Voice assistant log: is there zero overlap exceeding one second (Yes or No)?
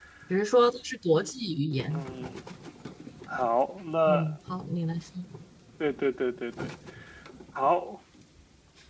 Yes